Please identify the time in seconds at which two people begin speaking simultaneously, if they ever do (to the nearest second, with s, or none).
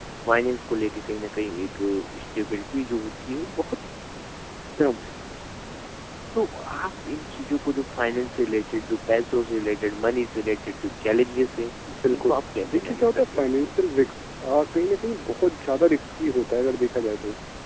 12 s